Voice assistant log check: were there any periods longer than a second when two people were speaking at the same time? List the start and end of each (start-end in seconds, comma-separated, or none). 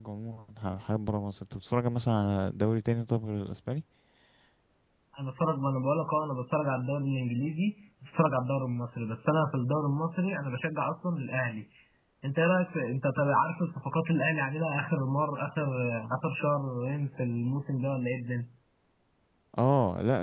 none